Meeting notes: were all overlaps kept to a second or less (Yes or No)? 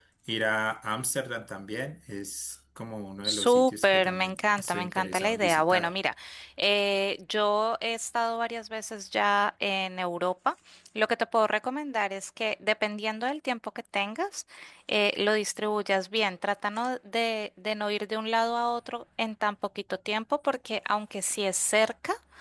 No